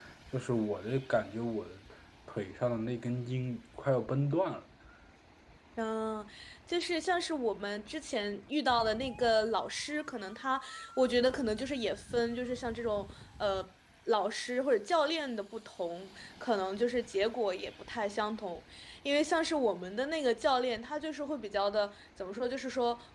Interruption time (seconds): none

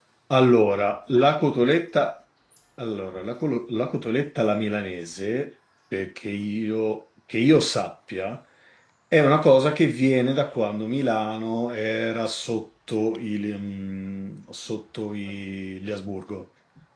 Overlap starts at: none

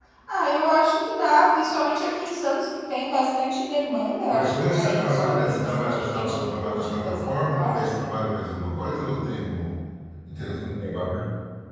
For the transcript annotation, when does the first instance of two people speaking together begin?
4.3 s

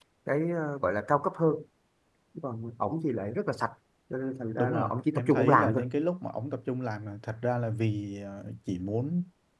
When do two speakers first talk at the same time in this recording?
4.6 s

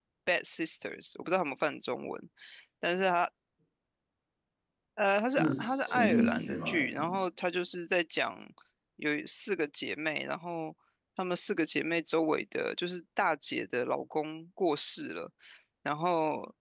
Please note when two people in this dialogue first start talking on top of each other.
5.2 s

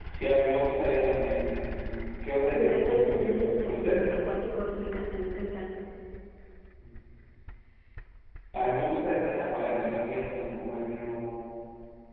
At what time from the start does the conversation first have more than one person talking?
2.5 s

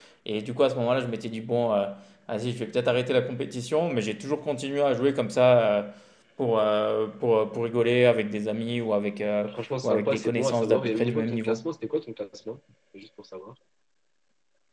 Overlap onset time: 9.8 s

